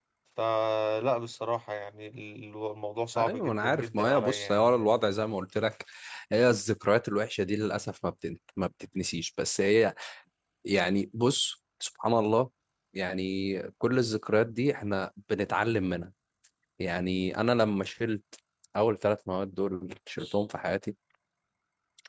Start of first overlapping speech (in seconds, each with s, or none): 3.1 s